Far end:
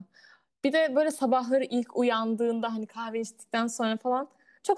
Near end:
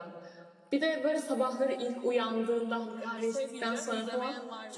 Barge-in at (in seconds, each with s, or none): 3.0 s